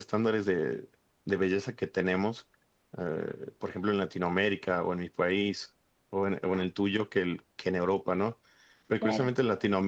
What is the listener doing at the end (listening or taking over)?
listening